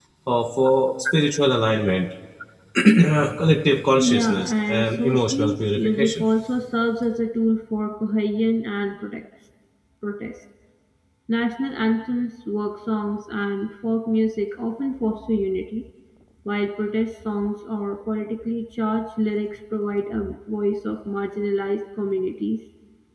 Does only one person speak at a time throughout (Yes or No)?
No